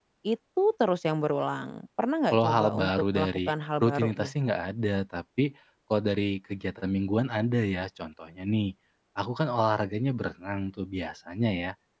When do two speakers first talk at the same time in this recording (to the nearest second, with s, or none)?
2 s